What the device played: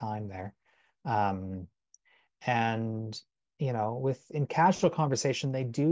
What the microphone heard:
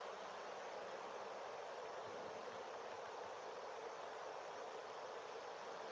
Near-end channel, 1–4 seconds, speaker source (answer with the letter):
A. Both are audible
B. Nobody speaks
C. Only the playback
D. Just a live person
B